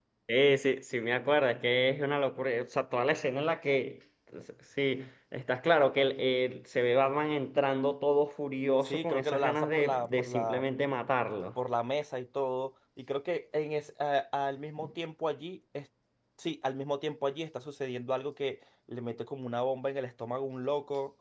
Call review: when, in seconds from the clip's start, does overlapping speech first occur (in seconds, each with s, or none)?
8.8 s